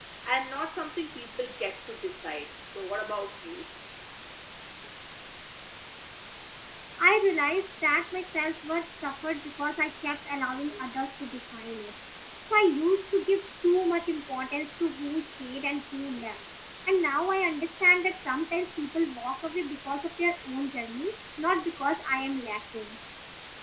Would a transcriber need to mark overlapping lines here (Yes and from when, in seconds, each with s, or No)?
No